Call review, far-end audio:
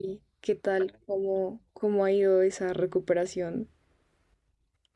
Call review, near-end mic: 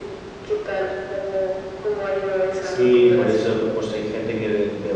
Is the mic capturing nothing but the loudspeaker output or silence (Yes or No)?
No